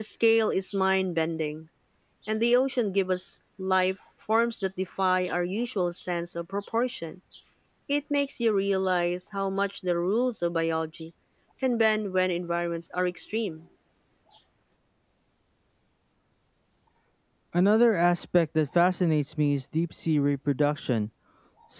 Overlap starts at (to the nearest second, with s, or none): none